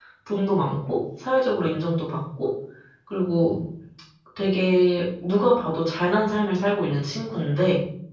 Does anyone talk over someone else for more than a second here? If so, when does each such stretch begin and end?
none

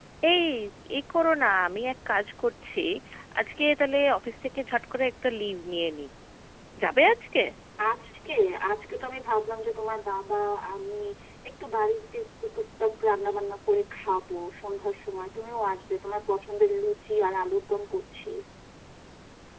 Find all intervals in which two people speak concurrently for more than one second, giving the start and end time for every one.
none

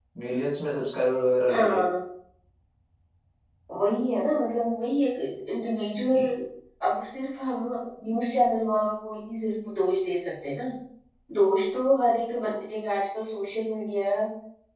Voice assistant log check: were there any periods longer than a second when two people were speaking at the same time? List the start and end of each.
none

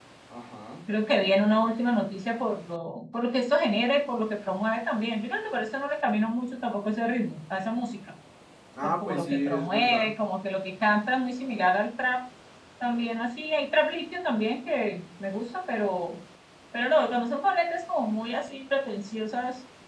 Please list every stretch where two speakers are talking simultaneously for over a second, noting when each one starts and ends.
8.8-10.1

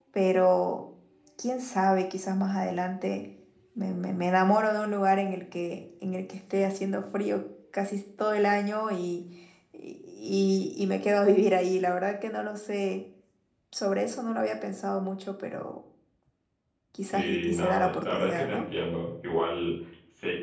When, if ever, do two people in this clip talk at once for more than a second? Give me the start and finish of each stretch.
17.1-18.6

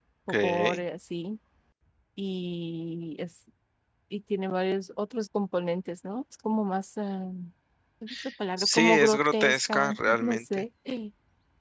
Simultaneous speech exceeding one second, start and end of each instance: 8.6-10.6

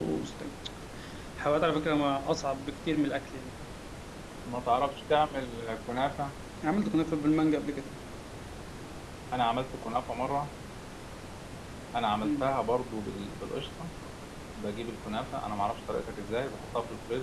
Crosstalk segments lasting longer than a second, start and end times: none

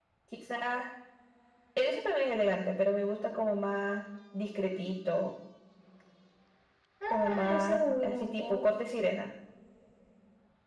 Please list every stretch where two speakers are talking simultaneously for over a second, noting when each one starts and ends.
7.1-8.6

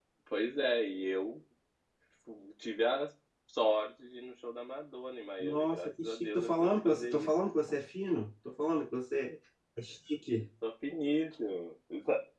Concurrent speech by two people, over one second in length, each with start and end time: 5.4-7.3

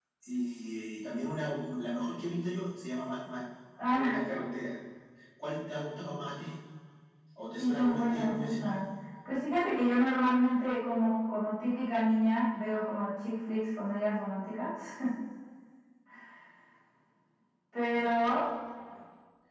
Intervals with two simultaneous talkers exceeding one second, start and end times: 7.6-8.8

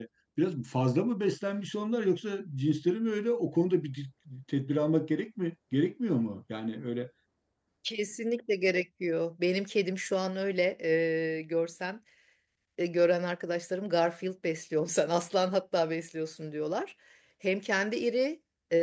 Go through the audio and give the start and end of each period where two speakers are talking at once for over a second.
none

